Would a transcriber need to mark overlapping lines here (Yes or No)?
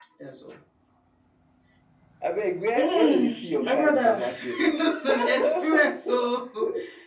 Yes